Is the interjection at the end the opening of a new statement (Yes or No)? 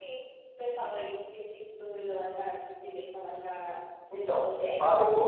Yes